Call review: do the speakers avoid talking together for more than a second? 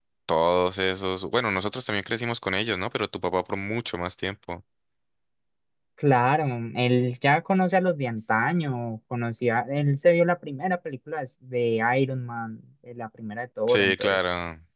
Yes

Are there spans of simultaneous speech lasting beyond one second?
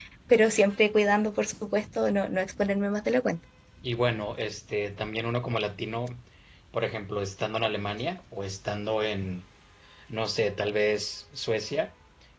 No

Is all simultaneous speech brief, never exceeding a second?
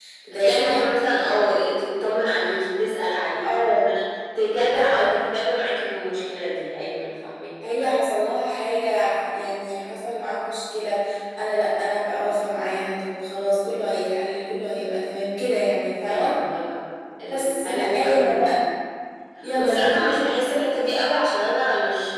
No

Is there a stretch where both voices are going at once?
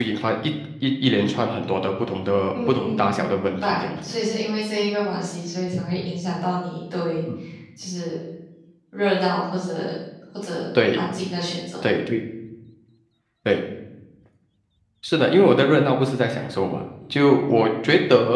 Yes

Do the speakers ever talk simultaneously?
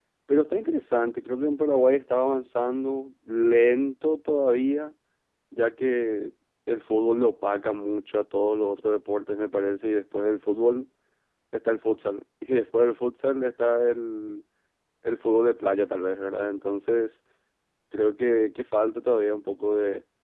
No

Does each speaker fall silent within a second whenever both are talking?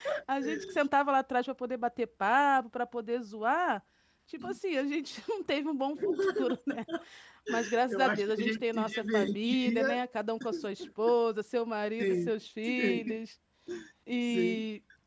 No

